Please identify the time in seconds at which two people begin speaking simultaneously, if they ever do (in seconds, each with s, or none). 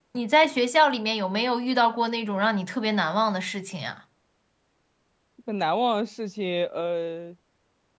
none